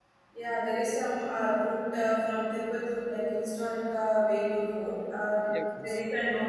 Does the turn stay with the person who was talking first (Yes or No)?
Yes